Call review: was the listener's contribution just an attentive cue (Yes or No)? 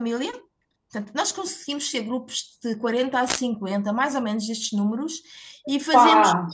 Yes